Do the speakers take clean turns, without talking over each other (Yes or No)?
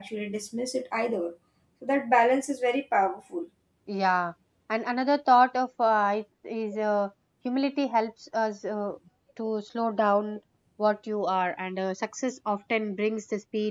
Yes